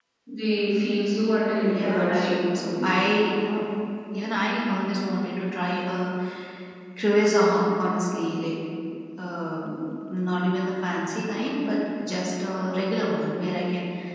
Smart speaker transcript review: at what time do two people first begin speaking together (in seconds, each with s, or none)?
1.7 s